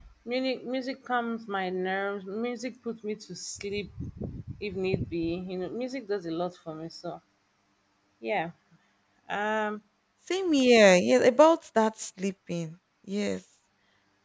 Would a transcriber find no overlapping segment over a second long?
Yes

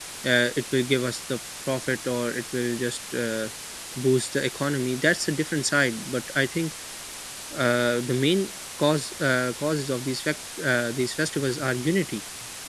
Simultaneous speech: No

